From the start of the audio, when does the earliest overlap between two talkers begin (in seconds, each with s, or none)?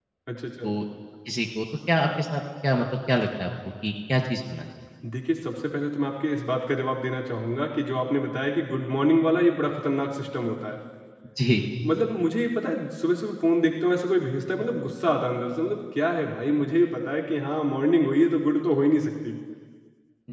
none